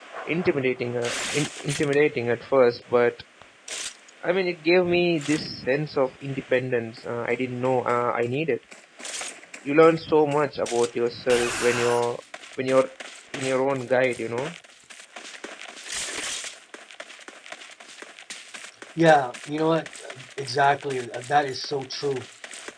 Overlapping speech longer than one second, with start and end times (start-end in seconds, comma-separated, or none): none